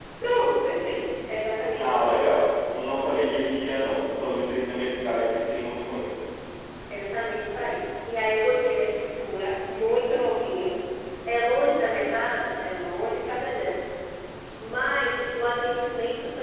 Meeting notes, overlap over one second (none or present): none